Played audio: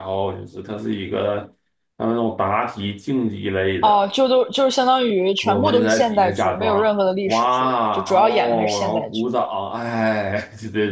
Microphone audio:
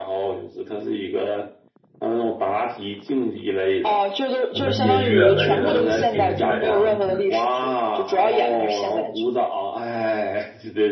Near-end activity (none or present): present